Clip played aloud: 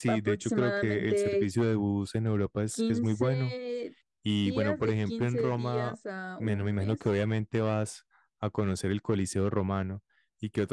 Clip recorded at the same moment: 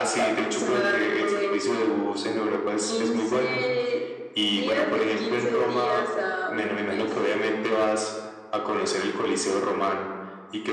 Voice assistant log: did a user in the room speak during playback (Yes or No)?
No